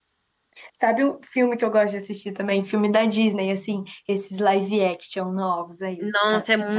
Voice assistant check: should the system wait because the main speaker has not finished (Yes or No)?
No